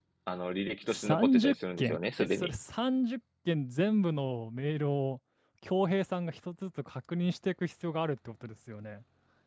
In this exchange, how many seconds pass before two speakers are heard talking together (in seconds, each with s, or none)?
0.9 s